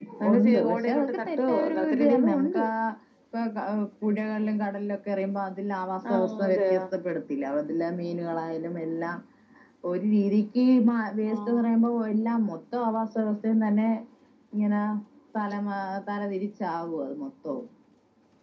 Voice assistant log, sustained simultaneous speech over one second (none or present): present